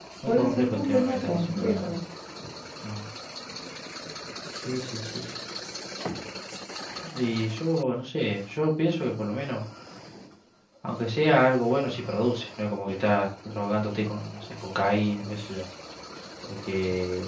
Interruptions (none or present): present